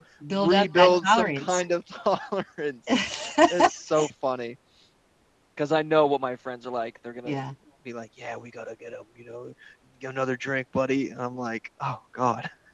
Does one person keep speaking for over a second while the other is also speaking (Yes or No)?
Yes